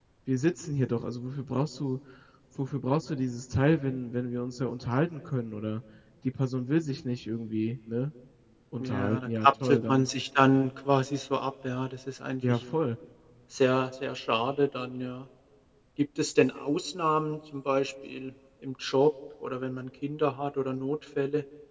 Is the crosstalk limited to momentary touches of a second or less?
No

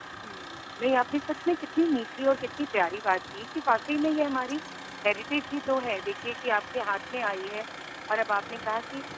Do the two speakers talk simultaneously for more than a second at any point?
No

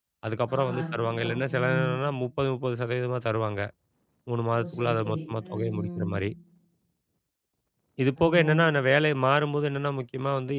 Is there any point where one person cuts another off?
Yes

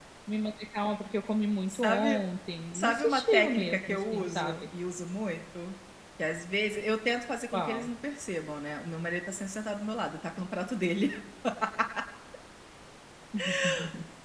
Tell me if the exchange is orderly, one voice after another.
No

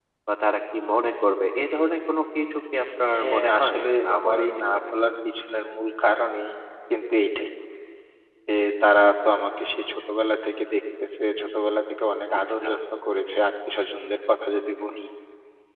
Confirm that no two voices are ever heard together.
No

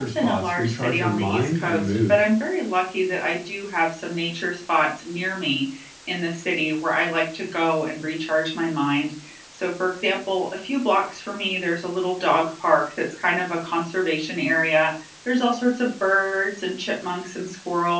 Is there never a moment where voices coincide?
No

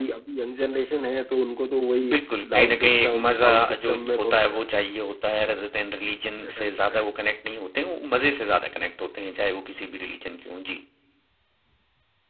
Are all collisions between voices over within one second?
No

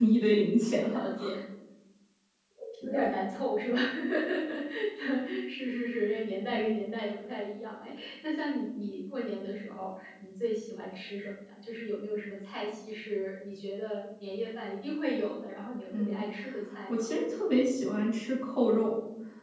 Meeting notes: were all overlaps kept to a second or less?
Yes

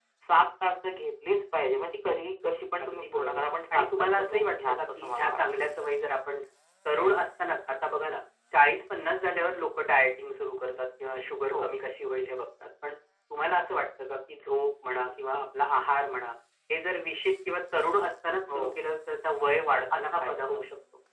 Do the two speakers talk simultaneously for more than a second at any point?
Yes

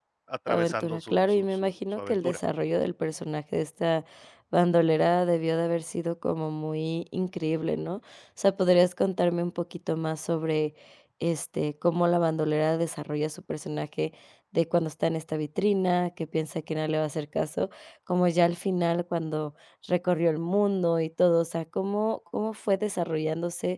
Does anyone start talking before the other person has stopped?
Yes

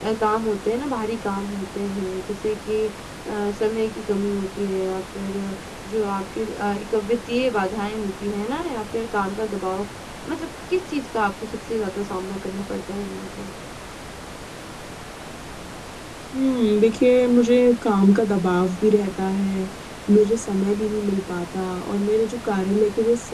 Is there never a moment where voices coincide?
Yes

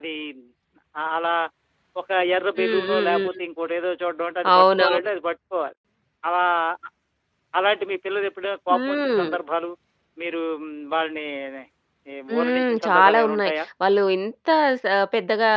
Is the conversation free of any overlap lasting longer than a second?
No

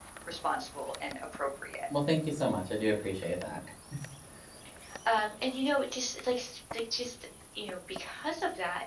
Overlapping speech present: No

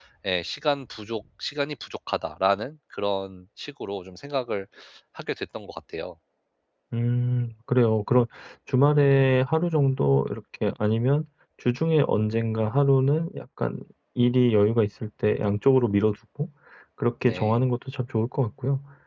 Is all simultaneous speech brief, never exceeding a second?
Yes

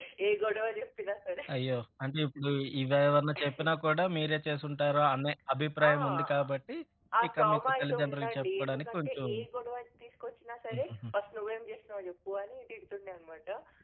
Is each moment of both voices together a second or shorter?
No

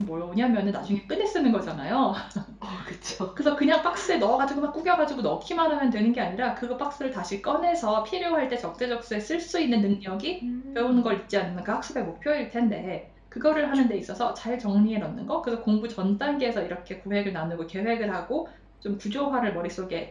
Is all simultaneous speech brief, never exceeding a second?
Yes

